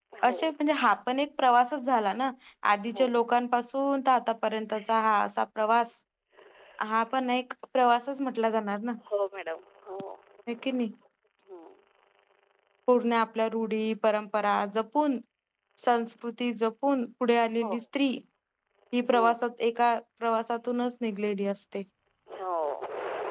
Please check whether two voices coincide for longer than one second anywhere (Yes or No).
No